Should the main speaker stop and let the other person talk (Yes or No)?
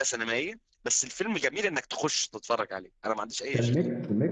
Yes